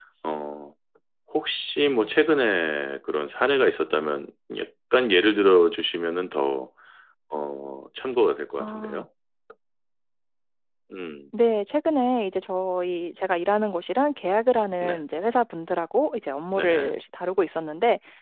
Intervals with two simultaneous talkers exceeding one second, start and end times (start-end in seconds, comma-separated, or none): none